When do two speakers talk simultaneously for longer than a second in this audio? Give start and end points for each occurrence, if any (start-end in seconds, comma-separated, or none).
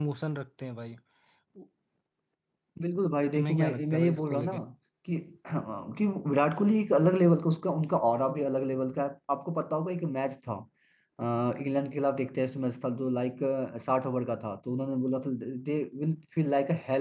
3.4-4.5